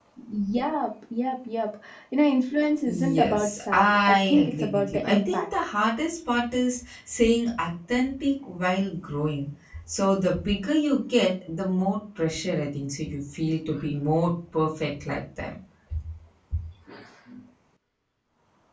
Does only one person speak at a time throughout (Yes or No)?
No